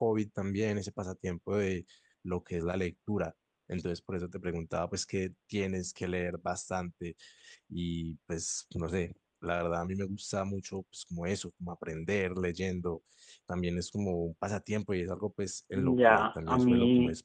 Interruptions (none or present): present